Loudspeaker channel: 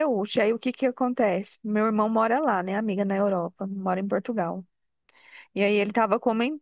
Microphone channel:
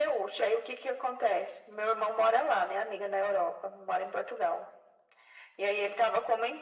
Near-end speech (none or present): none